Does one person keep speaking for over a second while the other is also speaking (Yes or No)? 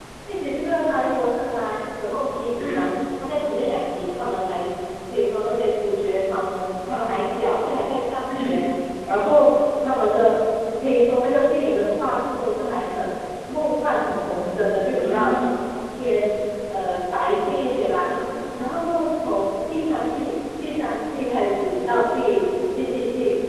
No